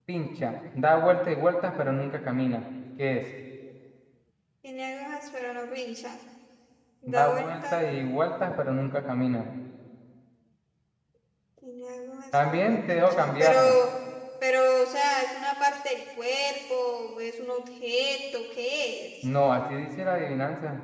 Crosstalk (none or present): present